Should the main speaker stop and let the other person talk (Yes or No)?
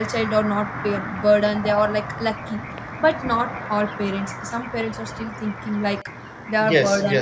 Yes